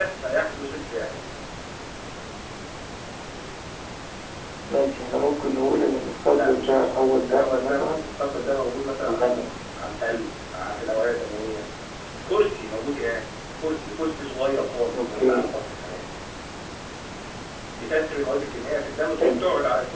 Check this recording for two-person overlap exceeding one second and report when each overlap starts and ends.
6.3-8.0

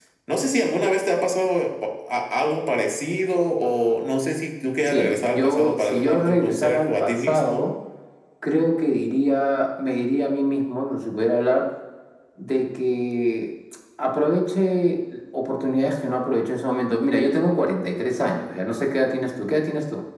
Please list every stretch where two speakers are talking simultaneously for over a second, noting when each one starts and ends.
4.9-7.6

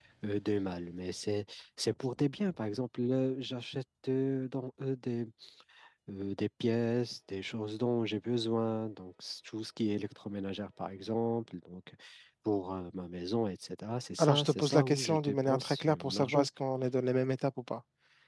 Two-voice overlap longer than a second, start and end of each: 14.2-16.5

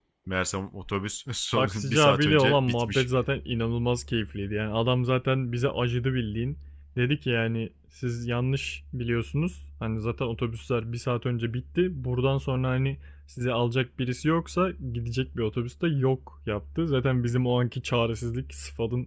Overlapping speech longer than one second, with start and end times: 1.6-3.1

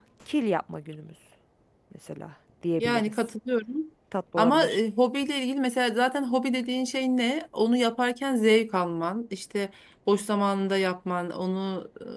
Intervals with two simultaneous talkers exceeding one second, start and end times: none

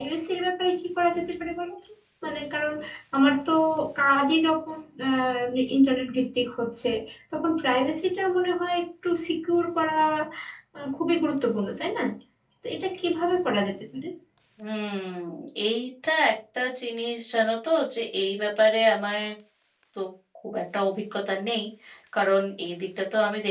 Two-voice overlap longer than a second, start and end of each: none

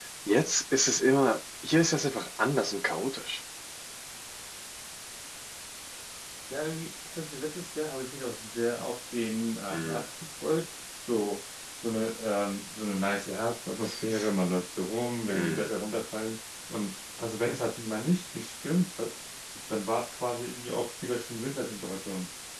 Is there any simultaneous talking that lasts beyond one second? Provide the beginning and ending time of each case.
none

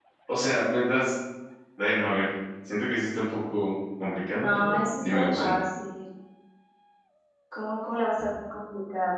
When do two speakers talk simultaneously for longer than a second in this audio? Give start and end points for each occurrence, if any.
4.3-5.5

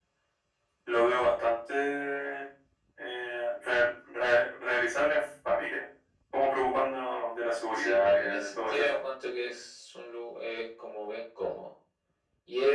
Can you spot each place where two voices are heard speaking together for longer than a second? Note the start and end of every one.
7.7-9.0

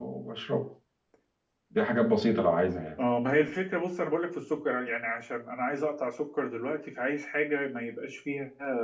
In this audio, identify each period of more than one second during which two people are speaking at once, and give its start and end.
none

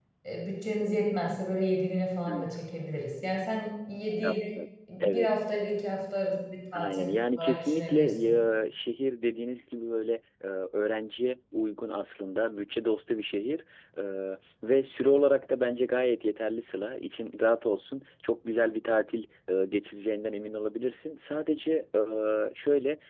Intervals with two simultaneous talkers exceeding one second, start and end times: 6.7-8.3

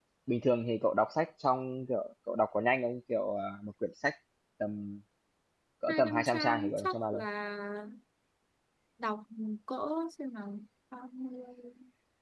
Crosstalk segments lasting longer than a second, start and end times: 5.9-7.2

